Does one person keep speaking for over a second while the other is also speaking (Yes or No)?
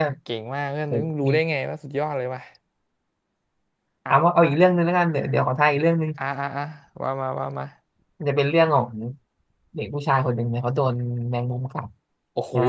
No